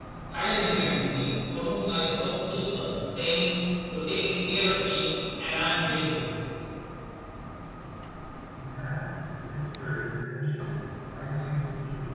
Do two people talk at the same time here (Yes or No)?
No